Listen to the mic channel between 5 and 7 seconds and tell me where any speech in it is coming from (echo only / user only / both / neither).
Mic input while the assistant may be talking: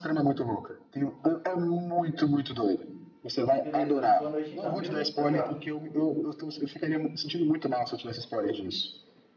both